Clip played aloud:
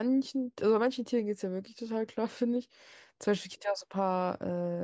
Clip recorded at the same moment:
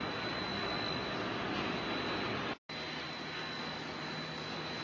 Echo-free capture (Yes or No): Yes